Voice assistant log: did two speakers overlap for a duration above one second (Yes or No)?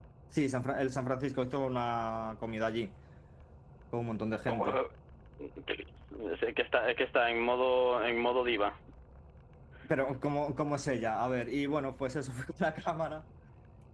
No